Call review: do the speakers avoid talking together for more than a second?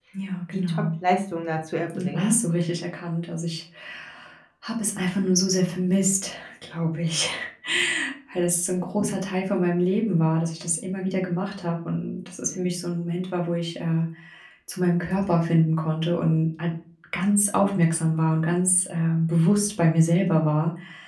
Yes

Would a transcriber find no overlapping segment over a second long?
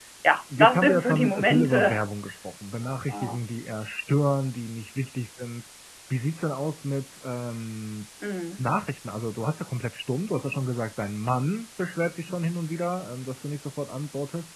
No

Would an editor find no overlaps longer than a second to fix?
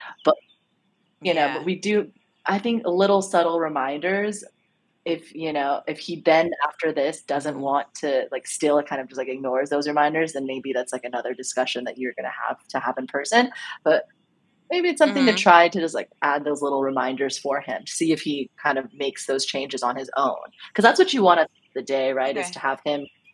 Yes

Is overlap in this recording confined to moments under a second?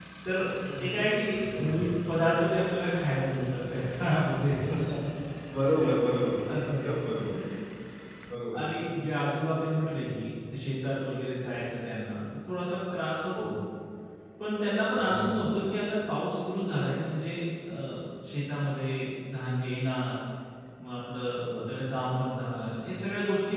Yes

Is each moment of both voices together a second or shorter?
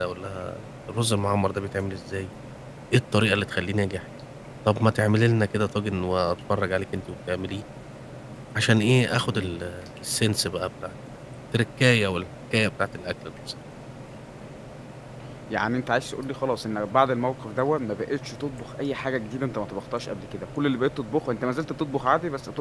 Yes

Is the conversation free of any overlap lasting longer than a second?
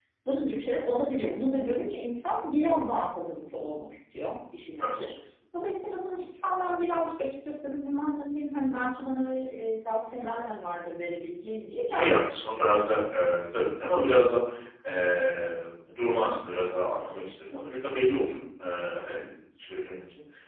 Yes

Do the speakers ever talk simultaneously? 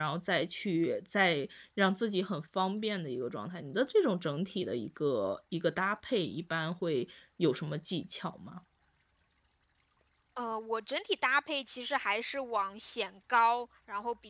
No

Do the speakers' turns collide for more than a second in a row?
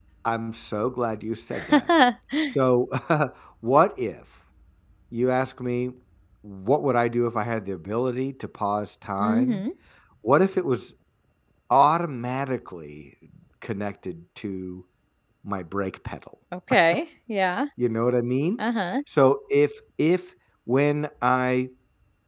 No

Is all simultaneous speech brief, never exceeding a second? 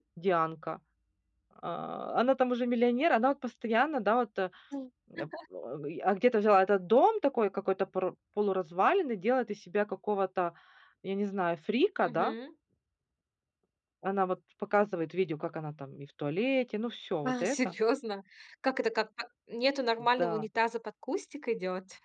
Yes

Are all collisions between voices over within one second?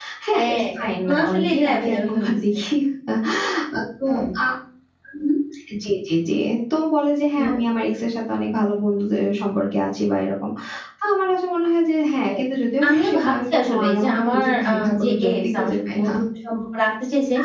No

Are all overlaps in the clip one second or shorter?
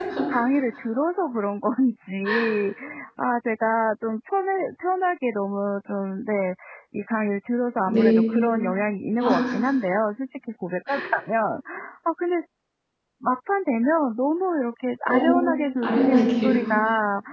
No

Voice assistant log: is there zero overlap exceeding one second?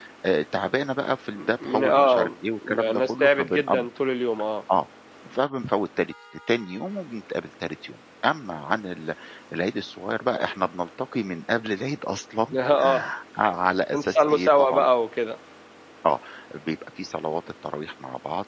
No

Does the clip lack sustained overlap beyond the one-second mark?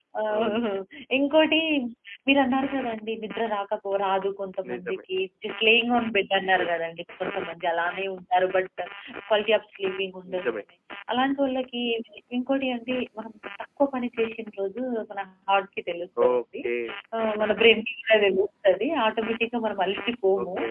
Yes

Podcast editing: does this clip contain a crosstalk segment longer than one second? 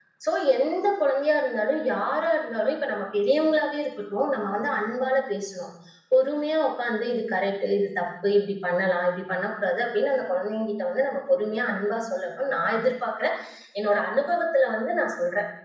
No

